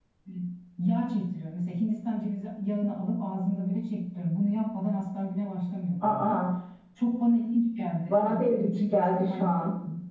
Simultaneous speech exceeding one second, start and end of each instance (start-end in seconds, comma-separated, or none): 8.1-9.5